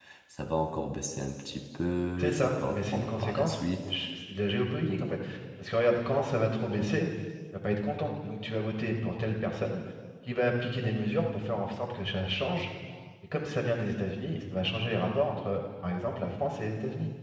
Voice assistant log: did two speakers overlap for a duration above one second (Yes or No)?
Yes